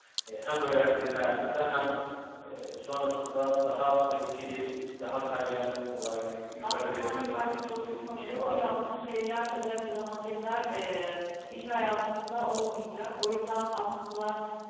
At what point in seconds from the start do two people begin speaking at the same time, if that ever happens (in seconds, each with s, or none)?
6.6 s